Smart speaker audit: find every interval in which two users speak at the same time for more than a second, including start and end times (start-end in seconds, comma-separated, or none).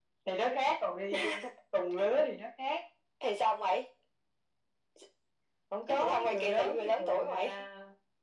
5.9-7.6